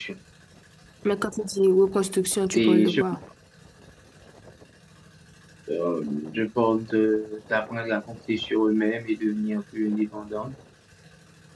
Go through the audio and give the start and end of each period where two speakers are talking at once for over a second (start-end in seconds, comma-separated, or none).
none